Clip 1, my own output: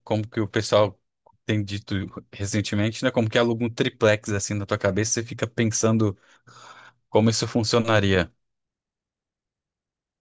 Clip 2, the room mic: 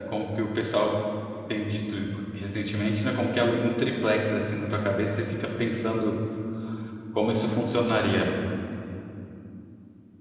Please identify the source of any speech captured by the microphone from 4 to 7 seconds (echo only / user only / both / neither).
echo only